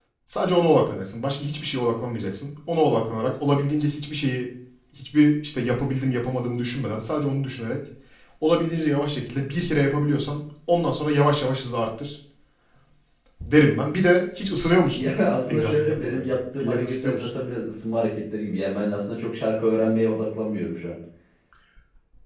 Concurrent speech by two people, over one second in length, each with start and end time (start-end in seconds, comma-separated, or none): 15.5-17.3